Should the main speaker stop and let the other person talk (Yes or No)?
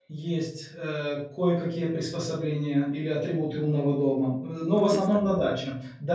No